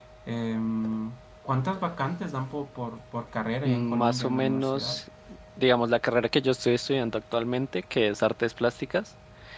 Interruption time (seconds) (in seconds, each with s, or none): 3.6 s